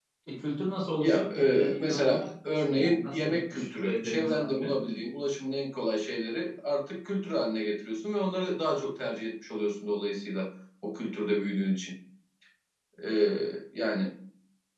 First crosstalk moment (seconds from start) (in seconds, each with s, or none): 1.0 s